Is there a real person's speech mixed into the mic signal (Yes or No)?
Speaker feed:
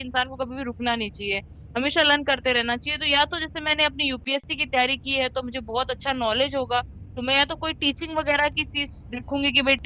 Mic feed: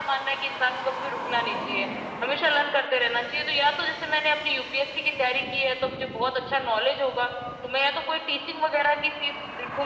No